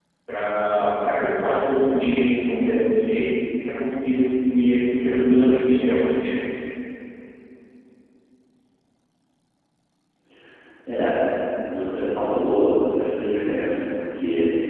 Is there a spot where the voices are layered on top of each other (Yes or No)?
No